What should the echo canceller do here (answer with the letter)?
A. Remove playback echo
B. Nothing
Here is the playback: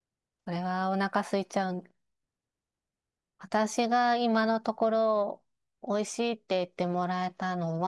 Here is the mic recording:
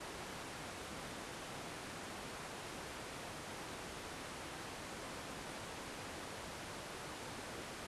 B